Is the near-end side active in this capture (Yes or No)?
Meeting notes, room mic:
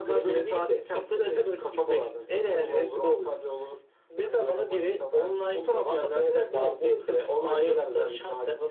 No